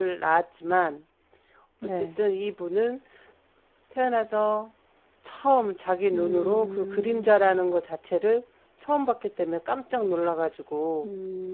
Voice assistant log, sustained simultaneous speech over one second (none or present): present